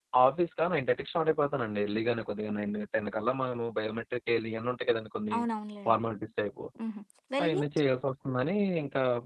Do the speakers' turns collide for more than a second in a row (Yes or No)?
No